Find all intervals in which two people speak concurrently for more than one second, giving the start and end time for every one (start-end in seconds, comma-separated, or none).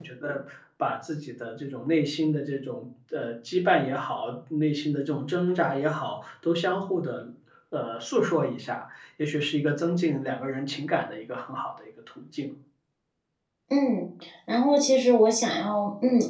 none